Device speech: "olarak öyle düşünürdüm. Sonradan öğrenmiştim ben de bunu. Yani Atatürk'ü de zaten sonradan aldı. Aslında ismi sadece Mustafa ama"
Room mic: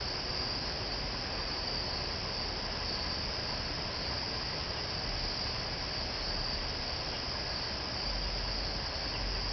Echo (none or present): none